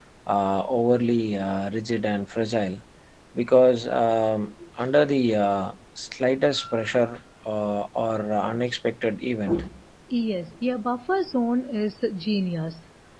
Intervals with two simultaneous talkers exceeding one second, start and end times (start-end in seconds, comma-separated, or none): none